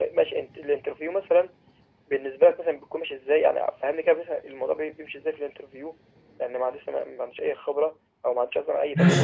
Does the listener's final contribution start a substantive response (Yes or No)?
Yes